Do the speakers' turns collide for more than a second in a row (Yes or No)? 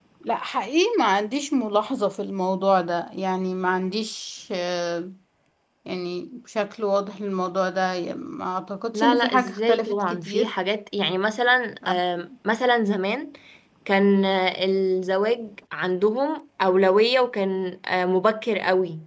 Yes